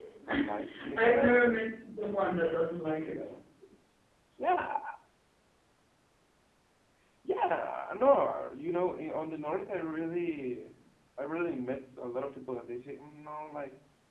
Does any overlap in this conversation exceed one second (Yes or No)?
Yes